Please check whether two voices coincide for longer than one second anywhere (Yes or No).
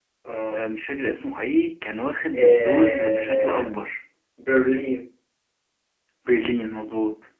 Yes